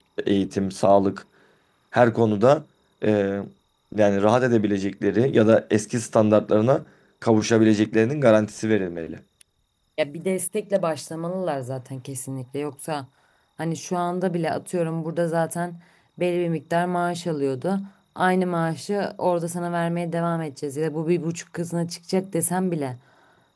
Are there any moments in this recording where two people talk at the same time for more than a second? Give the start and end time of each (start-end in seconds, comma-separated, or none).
none